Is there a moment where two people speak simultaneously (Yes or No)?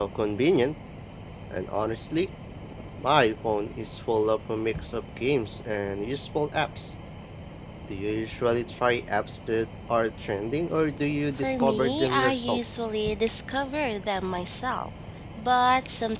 Yes